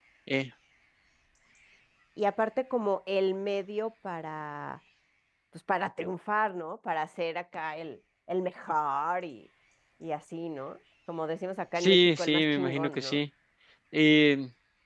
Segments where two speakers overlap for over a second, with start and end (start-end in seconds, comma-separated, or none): 11.8-13.2